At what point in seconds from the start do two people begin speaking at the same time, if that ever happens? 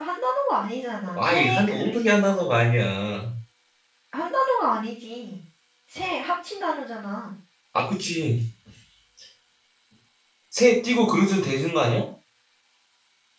1 s

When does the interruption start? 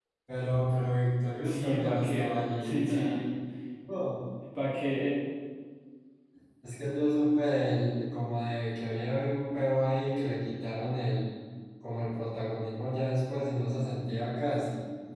1 s

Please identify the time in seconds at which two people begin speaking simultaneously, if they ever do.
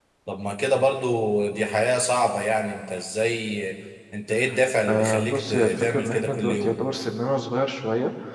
5 s

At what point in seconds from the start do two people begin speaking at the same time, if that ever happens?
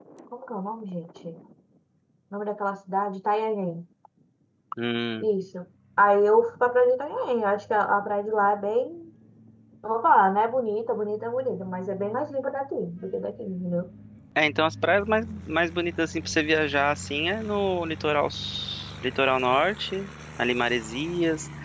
none

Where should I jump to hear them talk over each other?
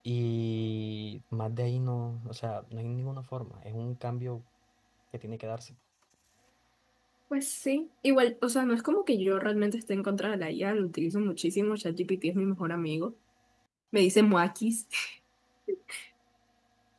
none

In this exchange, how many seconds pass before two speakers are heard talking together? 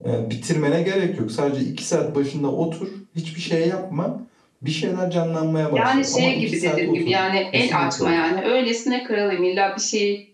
6 s

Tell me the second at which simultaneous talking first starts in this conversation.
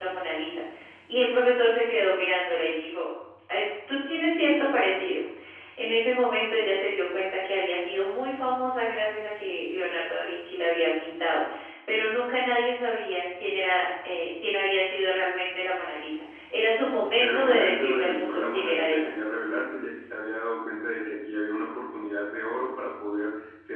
17 s

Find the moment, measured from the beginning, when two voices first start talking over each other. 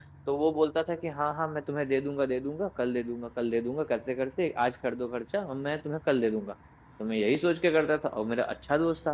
none

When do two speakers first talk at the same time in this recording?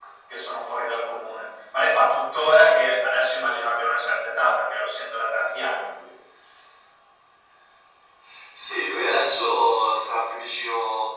none

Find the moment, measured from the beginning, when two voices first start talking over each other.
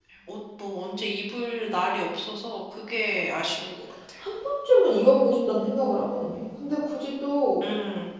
none

